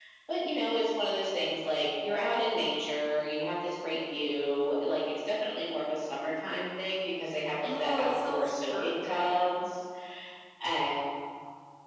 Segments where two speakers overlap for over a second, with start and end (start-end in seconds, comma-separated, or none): 7.6-9.4